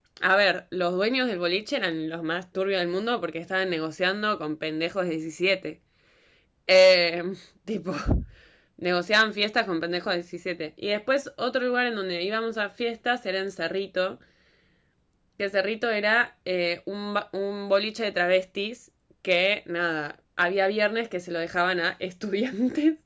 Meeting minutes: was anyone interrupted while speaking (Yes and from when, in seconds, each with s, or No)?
No